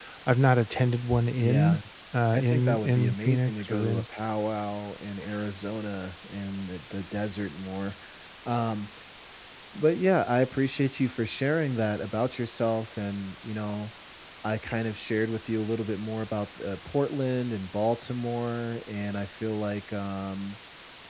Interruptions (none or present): present